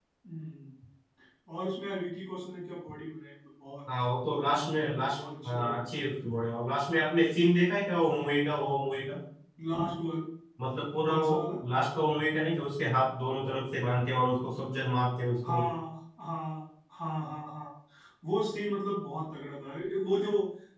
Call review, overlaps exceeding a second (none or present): present